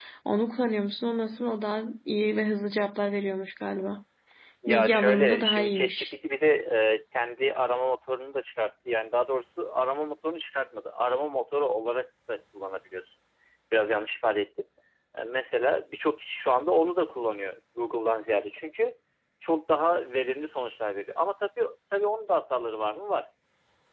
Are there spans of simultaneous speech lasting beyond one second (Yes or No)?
Yes